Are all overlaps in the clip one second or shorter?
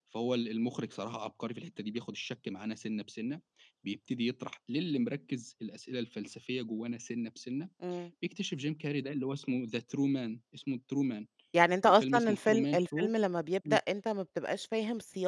No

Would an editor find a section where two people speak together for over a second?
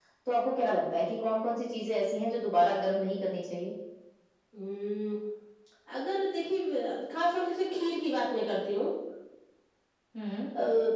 No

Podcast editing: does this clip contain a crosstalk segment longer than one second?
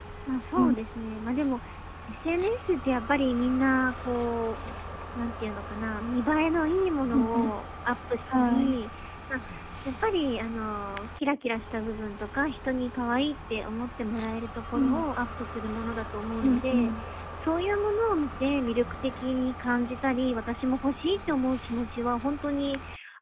No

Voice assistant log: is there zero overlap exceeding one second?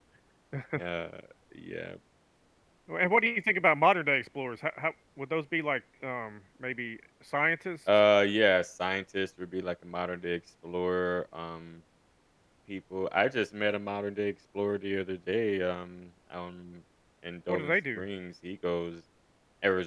Yes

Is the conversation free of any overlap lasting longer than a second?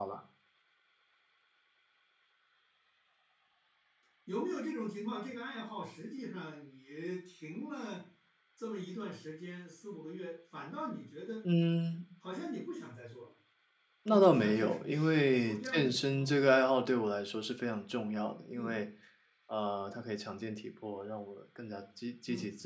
No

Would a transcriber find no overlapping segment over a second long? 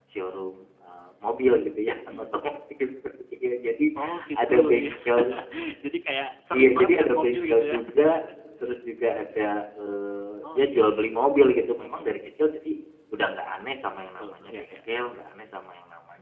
No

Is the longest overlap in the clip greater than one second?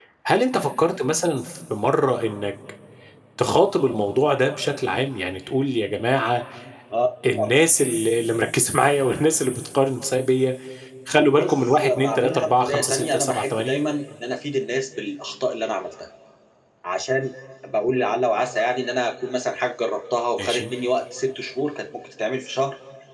Yes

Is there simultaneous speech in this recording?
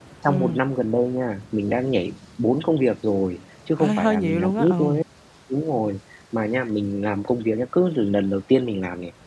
Yes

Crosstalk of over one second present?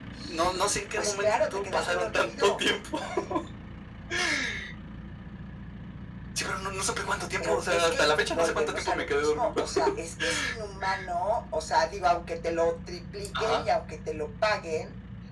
Yes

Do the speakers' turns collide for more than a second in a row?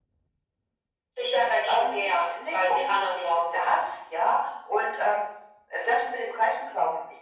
Yes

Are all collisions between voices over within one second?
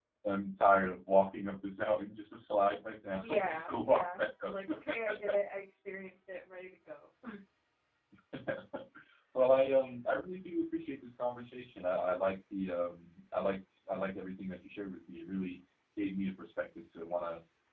No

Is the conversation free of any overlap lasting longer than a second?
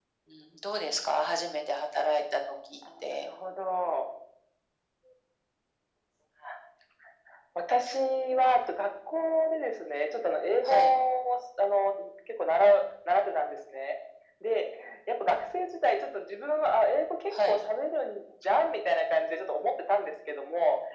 Yes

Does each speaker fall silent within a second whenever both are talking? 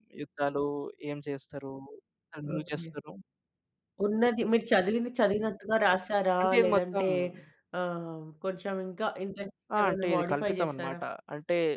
No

